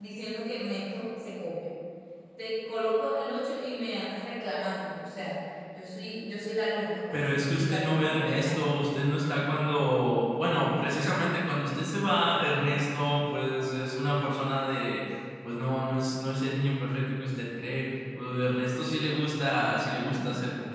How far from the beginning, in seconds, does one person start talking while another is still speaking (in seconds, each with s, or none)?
7.1 s